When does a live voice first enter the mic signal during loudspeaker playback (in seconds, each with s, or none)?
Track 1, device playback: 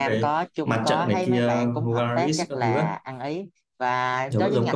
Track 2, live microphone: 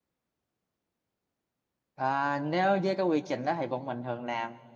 2.0 s